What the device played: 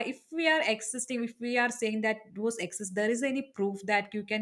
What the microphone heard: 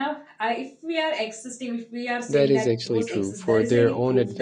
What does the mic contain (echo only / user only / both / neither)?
both